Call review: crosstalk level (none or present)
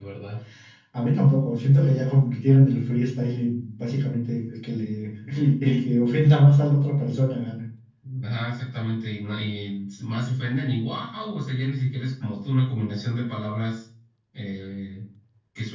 none